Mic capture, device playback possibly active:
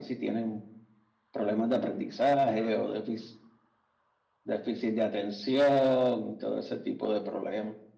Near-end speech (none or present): none